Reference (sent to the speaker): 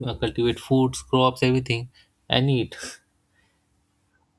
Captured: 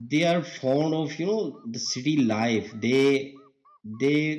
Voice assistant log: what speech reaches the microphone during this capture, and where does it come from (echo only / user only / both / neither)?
user only